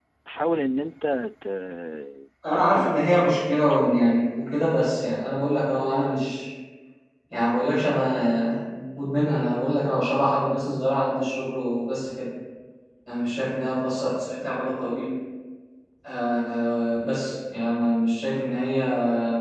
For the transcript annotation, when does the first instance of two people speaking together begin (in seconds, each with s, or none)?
2.5 s